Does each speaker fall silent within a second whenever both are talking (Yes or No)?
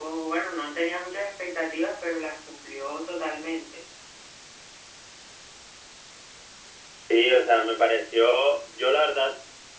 Yes